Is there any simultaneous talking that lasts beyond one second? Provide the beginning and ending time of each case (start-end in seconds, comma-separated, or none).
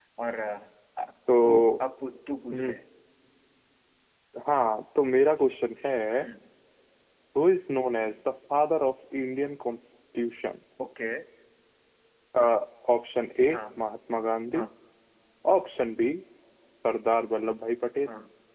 none